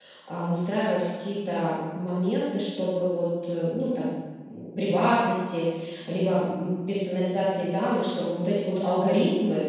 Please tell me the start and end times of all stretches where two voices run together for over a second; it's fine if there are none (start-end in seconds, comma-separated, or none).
none